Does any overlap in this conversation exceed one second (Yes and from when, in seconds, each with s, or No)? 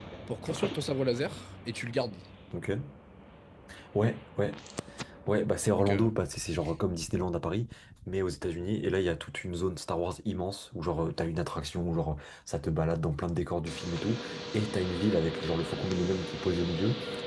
No